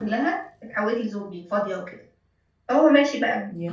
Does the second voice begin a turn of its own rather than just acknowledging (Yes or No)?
No